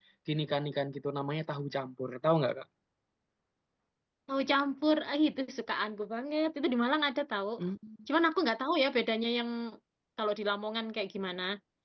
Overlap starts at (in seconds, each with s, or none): none